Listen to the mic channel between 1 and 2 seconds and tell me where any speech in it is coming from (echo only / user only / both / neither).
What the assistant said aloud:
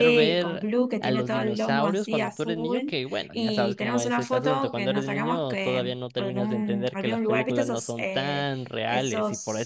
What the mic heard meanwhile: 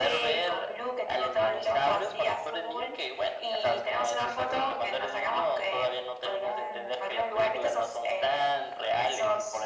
echo only